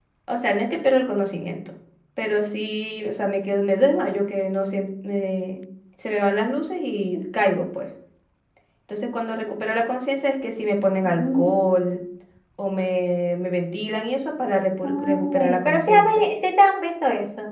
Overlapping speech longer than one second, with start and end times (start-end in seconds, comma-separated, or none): 14.8-16.3